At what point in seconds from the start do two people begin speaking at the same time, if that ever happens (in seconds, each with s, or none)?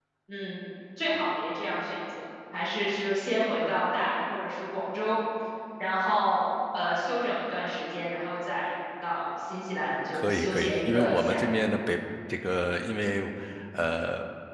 10.1 s